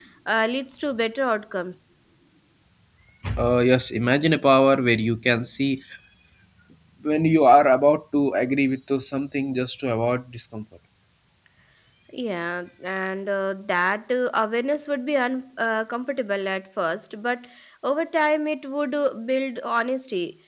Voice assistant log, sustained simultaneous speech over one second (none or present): none